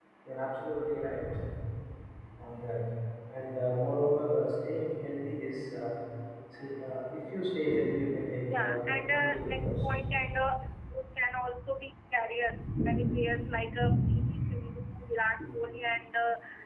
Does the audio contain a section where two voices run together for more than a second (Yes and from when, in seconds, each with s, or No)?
Yes, from 8.5 s